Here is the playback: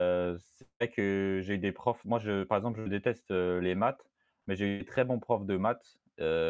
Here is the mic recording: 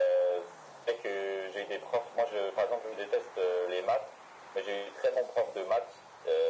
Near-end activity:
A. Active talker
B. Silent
B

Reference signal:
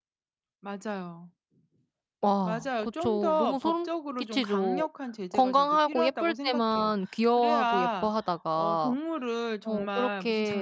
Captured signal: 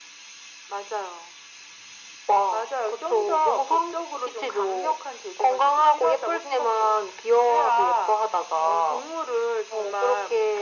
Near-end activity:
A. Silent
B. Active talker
A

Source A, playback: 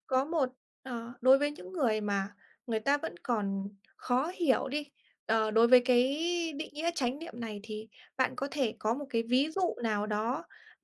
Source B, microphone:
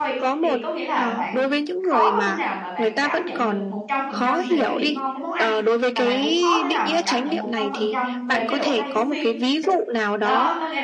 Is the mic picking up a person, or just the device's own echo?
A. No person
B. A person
B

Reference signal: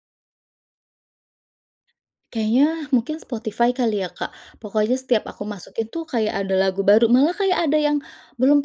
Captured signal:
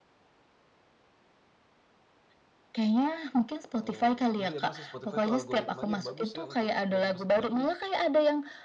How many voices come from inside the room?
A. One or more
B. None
A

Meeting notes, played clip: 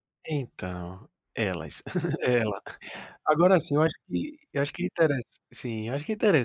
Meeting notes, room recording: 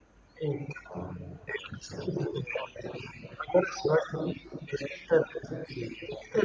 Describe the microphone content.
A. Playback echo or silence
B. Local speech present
A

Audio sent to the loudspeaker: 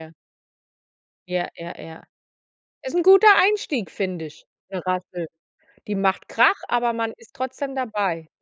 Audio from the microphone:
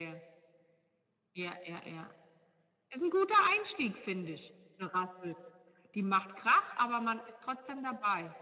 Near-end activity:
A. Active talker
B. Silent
B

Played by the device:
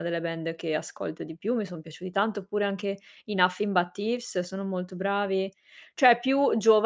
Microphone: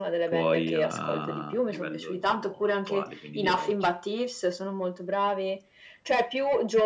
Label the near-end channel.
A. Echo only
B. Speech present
B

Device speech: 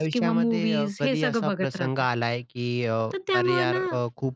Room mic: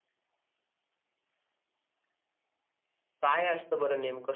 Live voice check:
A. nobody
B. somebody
B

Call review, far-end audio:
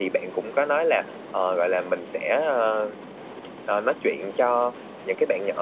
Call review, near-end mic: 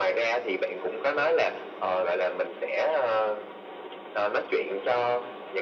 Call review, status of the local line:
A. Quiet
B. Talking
A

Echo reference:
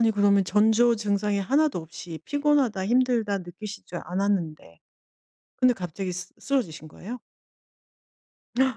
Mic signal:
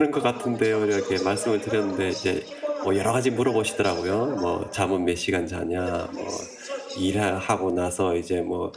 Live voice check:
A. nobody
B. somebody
B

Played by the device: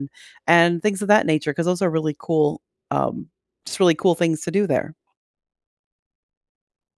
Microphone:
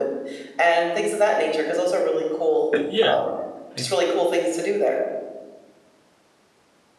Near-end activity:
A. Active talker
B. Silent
A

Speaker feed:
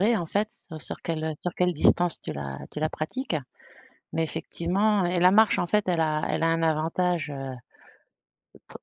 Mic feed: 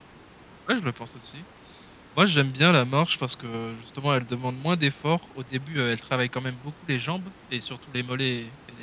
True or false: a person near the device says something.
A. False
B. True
B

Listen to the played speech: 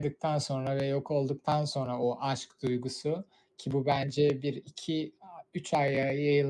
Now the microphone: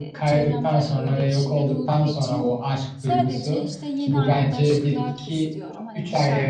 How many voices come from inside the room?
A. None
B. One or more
B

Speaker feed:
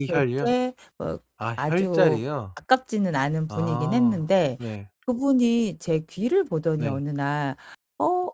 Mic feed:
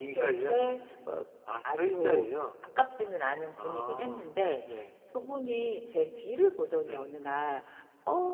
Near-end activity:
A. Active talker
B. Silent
B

